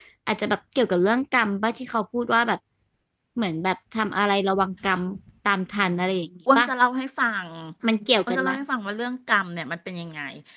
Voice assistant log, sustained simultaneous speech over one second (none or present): none